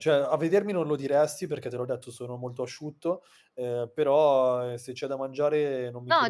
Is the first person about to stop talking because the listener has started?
Yes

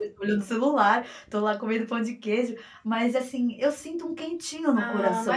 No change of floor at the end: No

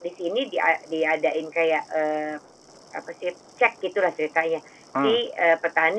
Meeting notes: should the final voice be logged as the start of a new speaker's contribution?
No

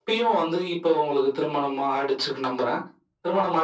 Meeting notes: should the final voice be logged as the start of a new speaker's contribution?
No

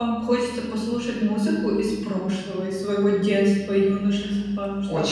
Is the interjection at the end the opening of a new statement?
Yes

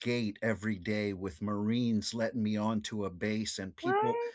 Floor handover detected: No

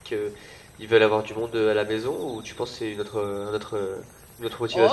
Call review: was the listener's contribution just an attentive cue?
No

